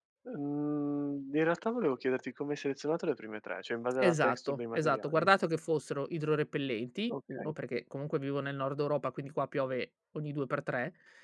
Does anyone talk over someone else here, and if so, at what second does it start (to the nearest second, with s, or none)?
4 s